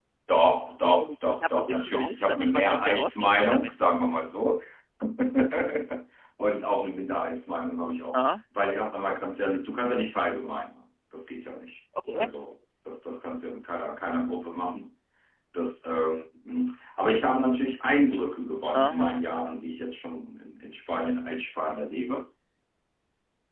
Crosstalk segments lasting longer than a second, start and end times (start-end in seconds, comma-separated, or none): 1.1-3.7